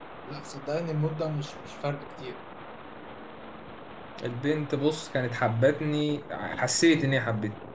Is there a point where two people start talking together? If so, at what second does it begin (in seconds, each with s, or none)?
none